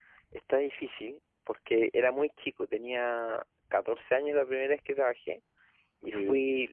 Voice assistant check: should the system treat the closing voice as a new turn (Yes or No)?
No